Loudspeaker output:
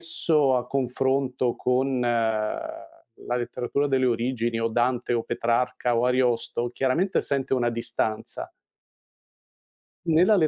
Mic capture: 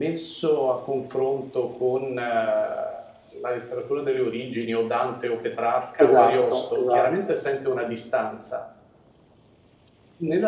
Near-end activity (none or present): present